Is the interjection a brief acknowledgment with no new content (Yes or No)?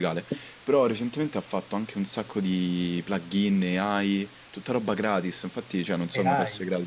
Yes